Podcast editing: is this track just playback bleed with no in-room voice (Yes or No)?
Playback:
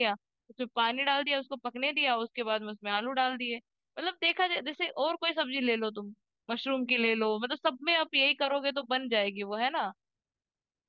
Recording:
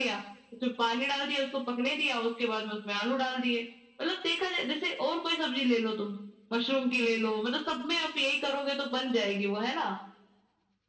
Yes